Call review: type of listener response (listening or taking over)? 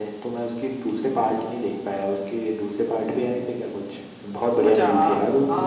taking over